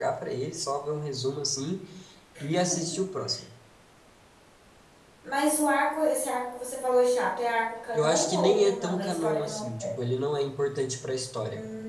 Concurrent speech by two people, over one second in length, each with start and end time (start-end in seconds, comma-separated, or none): 7.9-9.9